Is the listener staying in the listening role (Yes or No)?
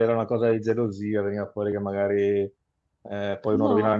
Yes